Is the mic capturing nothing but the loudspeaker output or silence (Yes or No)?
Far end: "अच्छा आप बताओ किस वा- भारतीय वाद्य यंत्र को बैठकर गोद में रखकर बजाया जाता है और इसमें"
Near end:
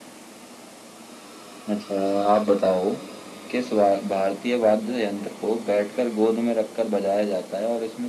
Yes